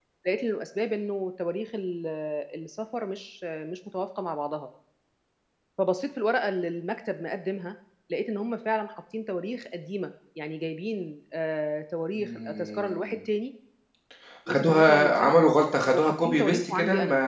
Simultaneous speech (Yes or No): Yes